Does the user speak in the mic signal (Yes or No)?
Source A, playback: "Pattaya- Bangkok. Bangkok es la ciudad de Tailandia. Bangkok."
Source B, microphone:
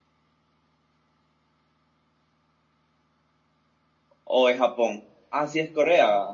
Yes